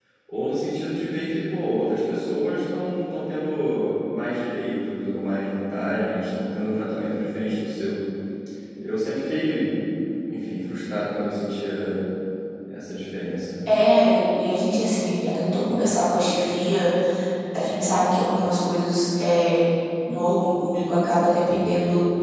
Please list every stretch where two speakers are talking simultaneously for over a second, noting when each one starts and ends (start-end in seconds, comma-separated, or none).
none